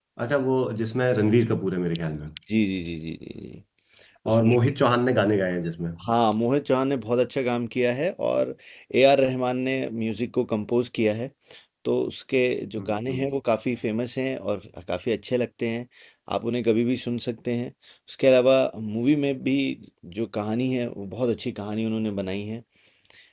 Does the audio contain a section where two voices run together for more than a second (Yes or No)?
No